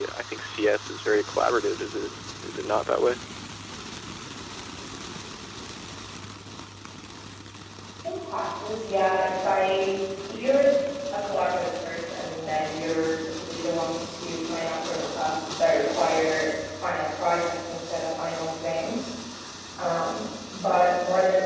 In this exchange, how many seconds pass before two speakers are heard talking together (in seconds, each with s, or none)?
none